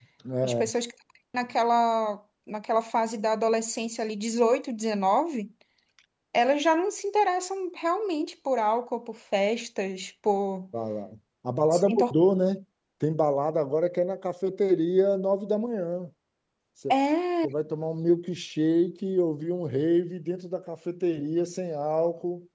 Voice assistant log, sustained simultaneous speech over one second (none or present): none